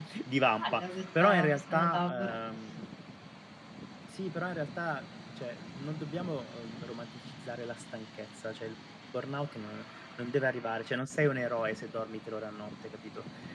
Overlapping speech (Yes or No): Yes